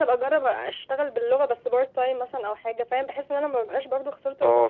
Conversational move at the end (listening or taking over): taking over